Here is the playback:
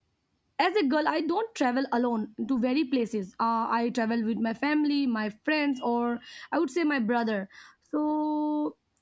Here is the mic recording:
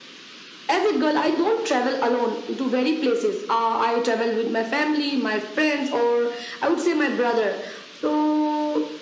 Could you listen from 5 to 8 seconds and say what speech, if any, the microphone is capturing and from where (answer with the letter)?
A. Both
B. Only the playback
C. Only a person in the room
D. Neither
B